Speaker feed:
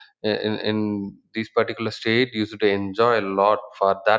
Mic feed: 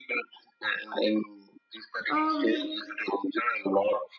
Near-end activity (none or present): present